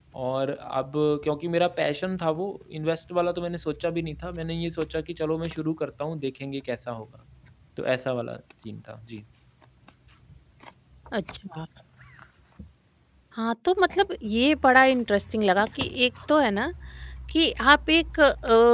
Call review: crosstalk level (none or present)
none